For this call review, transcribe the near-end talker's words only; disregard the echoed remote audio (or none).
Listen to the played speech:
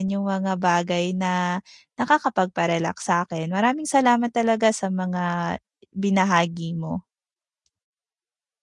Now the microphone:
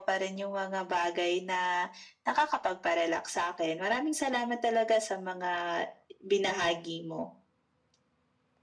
none